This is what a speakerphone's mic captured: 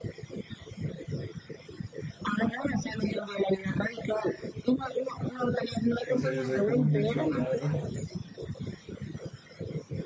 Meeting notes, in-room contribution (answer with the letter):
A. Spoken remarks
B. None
A